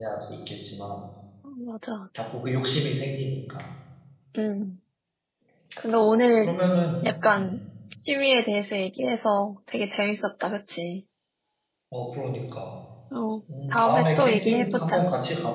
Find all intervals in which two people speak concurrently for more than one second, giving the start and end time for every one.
13.7-15.0

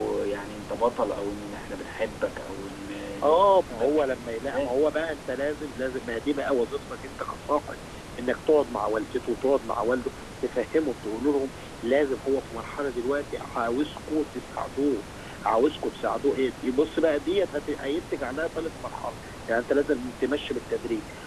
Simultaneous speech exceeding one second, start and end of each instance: 3.2-4.7

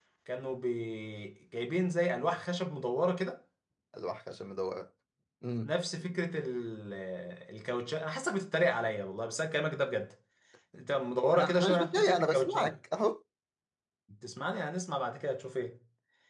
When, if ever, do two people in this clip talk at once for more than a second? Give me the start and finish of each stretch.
11.3-12.7

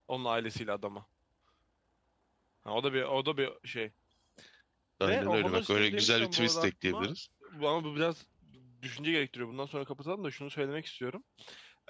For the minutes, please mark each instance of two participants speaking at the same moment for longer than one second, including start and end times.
5.0-7.1

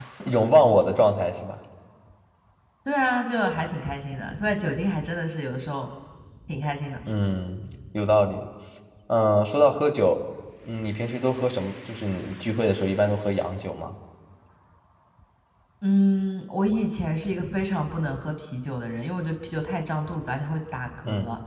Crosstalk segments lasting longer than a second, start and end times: none

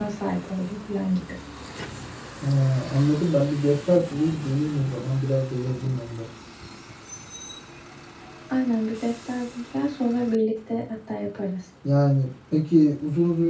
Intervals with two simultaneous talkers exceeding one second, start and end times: none

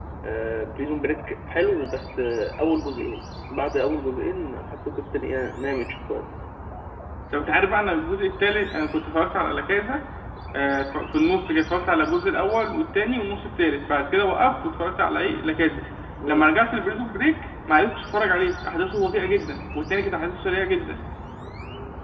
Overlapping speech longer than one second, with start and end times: none

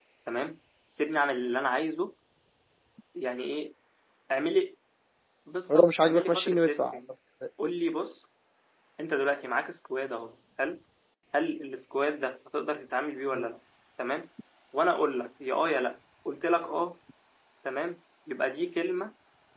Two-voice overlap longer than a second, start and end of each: 5.7-7.0

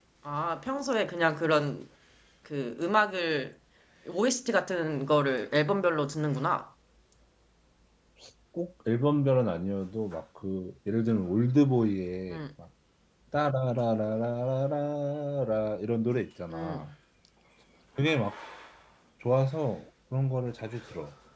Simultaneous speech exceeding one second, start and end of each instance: none

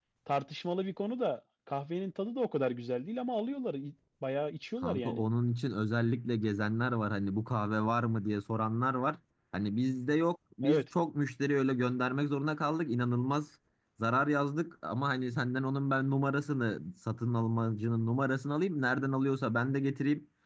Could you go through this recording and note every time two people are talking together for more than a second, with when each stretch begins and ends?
none

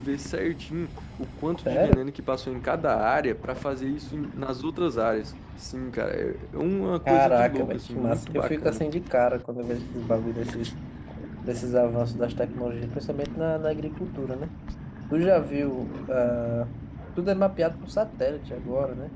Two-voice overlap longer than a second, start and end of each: 7.1-8.8

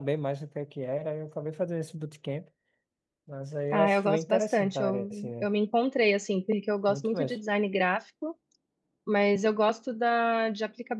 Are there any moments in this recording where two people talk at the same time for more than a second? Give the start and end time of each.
3.7-5.5

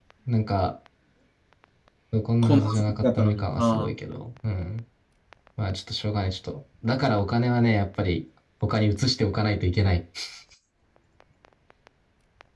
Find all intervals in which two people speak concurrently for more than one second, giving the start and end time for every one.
2.4-3.9

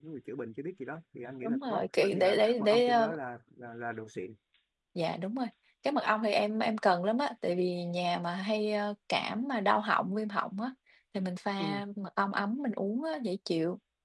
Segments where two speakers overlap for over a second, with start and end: 1.4-3.2

